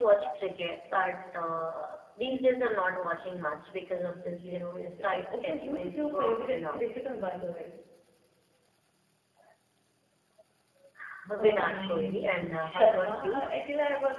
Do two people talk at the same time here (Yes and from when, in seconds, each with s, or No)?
Yes, from 4.0 s